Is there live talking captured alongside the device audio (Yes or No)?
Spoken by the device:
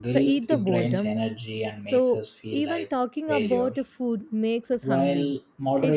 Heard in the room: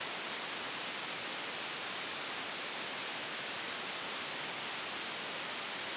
No